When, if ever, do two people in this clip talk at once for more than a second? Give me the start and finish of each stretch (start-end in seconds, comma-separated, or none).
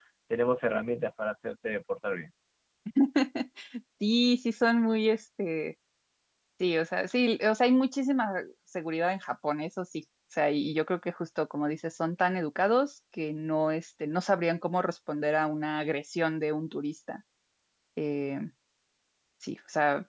none